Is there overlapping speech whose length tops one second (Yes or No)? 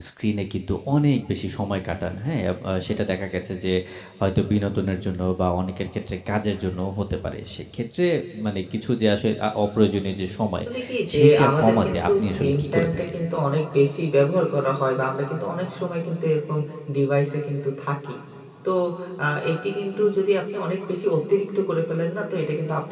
Yes